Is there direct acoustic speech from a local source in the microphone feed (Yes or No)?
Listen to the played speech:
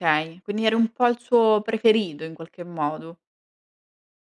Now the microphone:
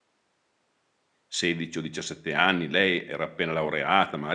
Yes